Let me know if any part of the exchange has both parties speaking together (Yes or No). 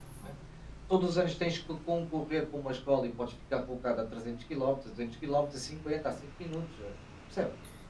No